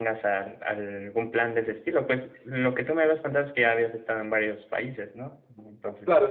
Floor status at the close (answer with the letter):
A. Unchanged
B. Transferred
B